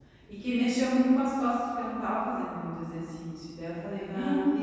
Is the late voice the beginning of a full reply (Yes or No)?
Yes